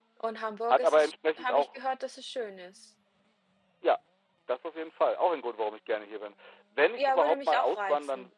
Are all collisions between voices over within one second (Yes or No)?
No